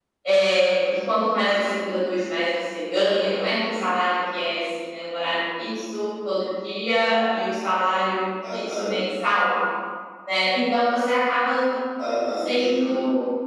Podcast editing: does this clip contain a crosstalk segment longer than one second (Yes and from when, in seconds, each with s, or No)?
No